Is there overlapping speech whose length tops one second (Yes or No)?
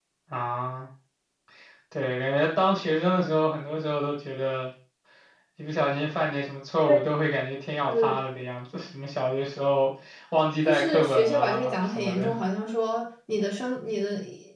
Yes